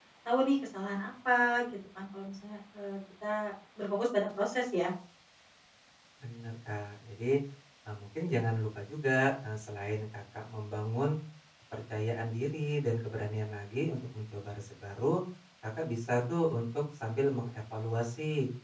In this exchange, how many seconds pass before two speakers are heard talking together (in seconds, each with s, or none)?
none